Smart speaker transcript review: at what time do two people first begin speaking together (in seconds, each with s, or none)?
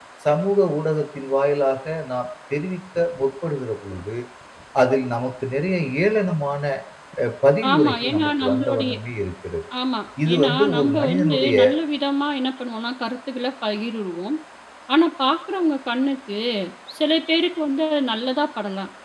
7.7 s